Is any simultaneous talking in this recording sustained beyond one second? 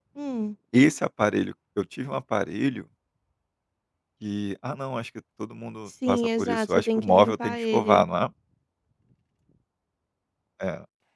Yes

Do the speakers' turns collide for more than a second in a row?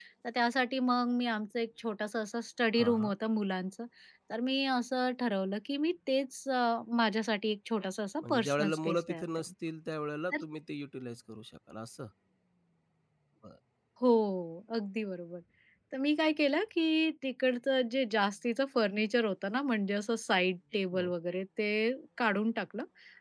Yes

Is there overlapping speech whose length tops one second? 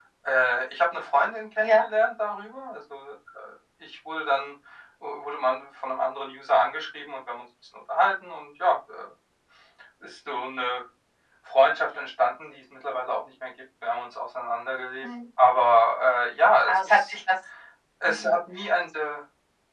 No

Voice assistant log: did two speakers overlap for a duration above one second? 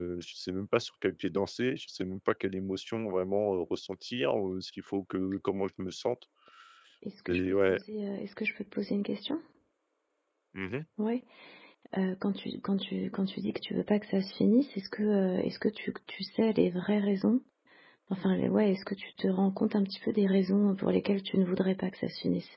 No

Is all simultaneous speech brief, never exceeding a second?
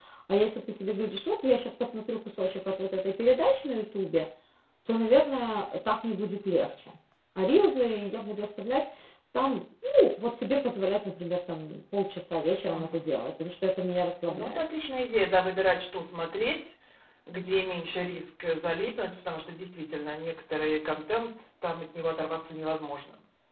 Yes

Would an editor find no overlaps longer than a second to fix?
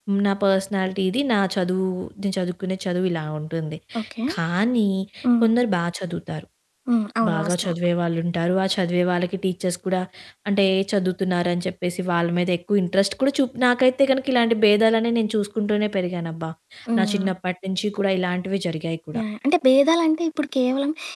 Yes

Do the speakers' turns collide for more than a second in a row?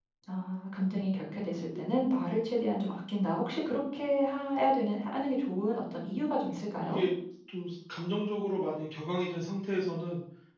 No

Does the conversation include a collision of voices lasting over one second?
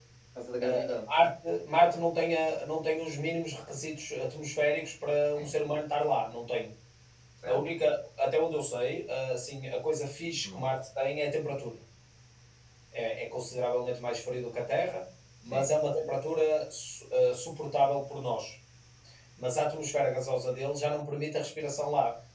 No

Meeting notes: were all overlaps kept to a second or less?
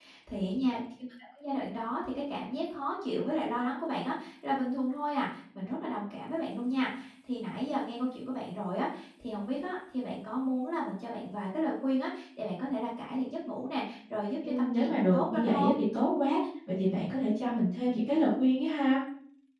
No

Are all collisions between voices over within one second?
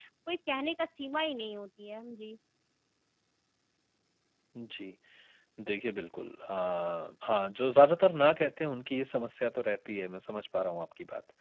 Yes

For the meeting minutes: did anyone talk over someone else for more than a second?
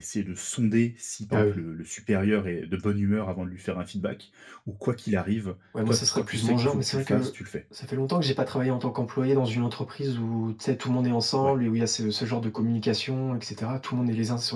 Yes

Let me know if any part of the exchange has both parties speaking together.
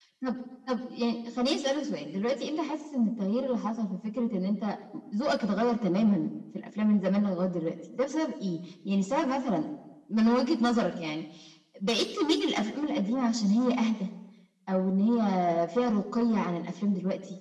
No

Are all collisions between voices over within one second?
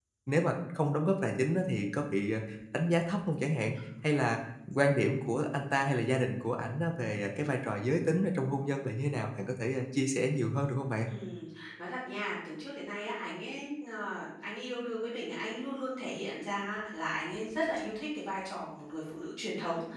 Yes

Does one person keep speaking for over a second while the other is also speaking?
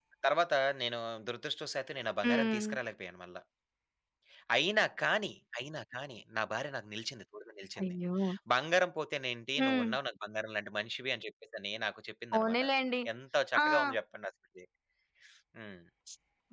No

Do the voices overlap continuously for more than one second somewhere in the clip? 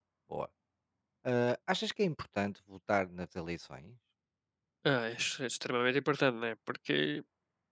No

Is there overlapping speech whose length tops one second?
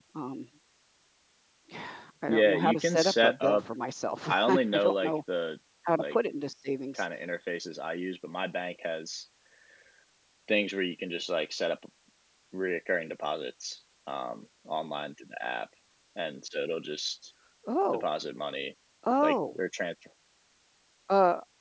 Yes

